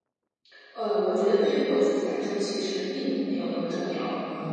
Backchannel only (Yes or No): No